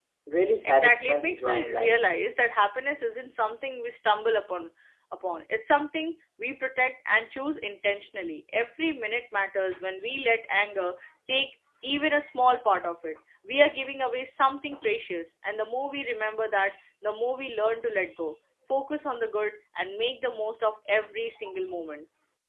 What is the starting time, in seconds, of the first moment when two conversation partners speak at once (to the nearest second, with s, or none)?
1 s